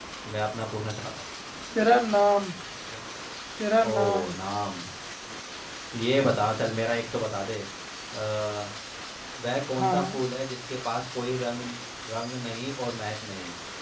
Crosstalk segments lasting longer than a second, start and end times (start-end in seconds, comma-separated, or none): none